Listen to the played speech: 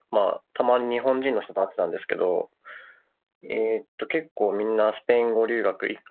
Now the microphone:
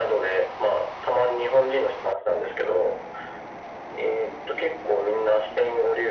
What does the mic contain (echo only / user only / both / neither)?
echo only